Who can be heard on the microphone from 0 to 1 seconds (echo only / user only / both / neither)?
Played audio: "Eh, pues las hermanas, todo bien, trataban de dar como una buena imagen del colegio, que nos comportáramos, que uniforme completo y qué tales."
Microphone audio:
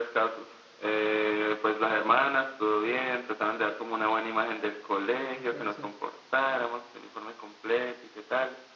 echo only